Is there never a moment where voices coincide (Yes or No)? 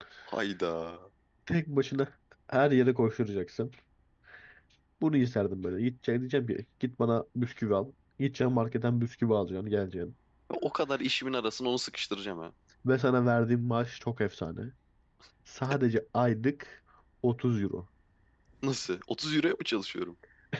Yes